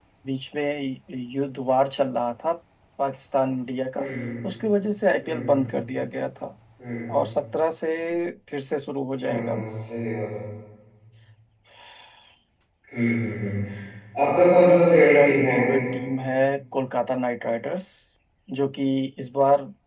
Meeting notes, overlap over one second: present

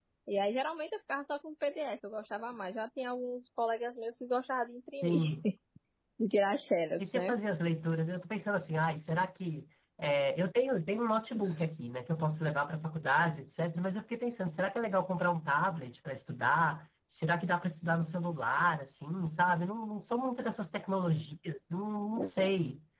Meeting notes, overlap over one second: none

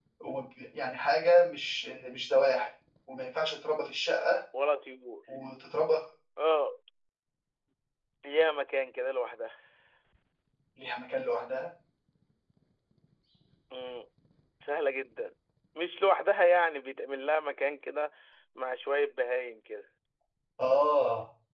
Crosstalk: none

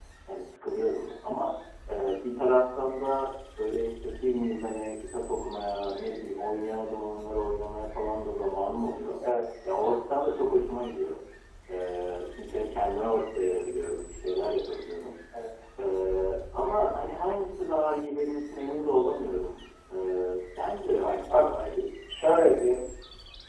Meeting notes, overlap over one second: none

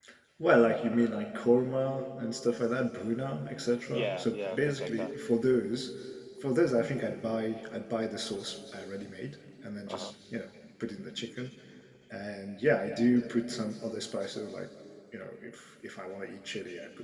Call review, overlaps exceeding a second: present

